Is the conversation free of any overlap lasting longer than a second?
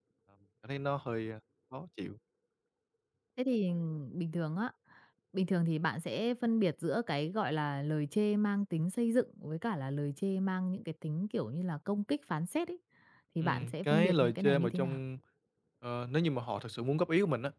No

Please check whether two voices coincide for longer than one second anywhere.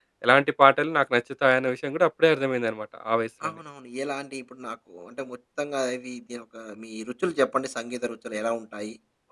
No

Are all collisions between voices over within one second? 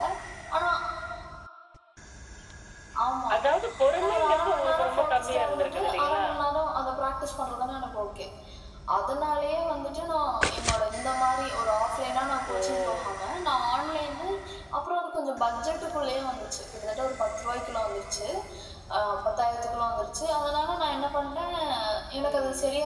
No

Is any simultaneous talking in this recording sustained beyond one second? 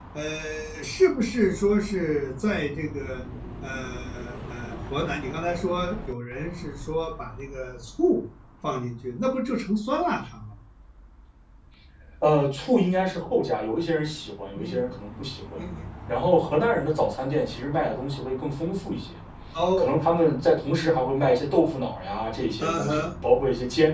No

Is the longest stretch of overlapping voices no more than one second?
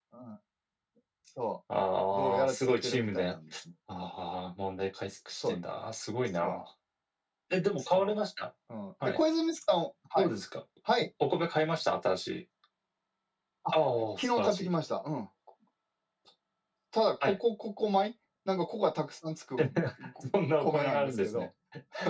No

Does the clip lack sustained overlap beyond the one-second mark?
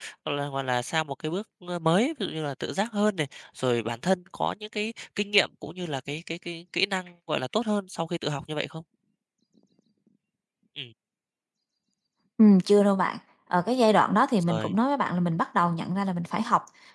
Yes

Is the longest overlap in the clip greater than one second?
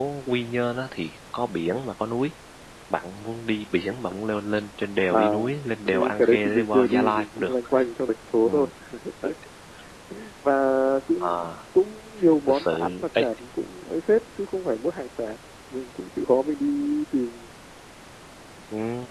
Yes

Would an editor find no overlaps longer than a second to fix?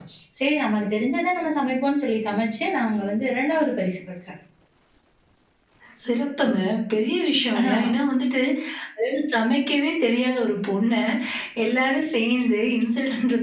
Yes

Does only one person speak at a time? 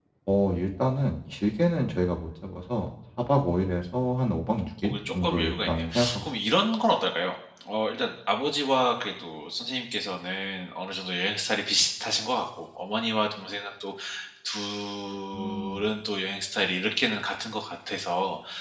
No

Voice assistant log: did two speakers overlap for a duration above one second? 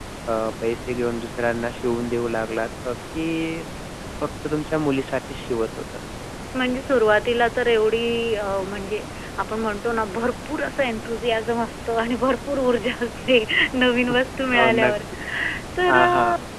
No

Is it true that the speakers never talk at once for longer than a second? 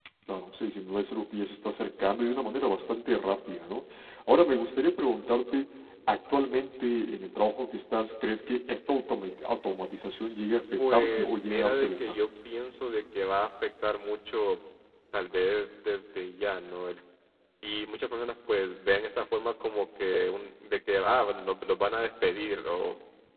No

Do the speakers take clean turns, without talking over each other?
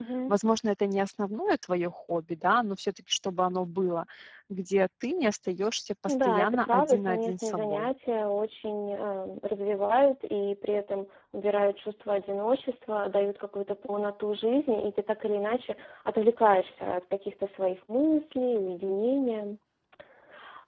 No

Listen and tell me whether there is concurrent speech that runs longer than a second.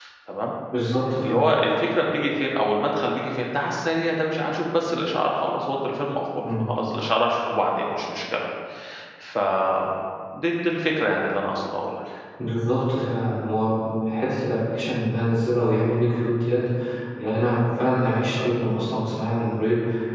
No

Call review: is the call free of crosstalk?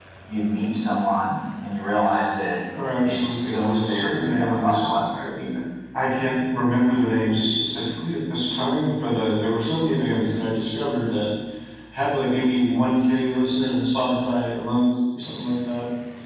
No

